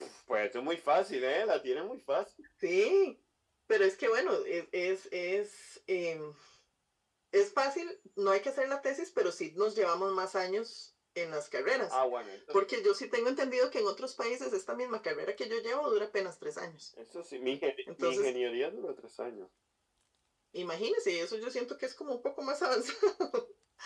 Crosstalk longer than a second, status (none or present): none